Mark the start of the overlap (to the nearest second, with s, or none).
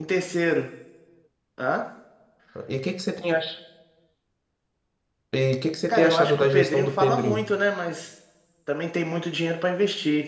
6 s